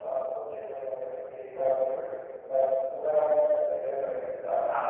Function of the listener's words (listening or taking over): taking over